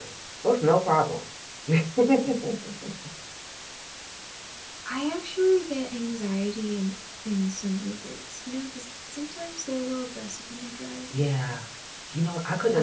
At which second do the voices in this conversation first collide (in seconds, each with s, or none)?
none